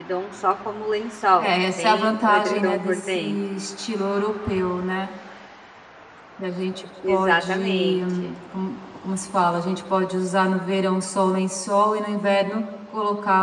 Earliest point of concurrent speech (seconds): 1.4 s

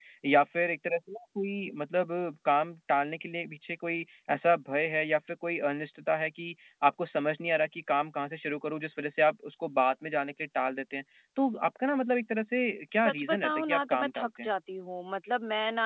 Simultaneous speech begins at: 13.0 s

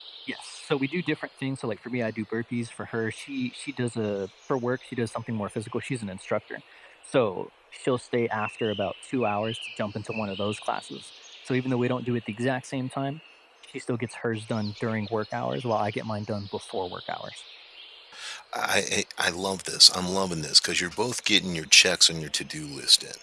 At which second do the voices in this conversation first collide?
none

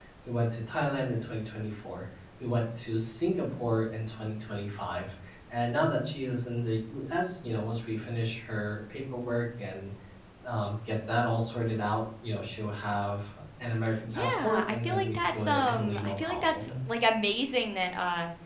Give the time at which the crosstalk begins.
14.1 s

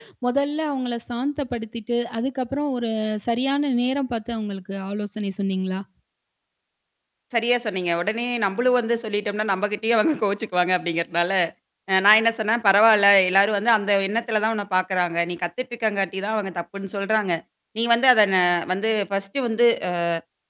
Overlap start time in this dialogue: none

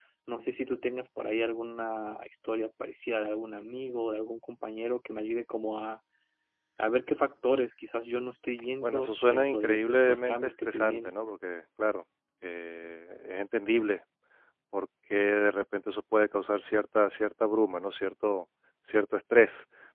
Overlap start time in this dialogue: 8.8 s

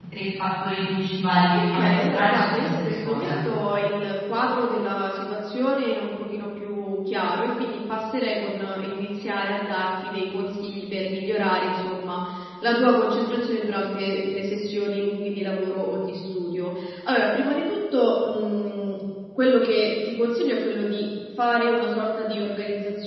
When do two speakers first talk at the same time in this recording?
1.5 s

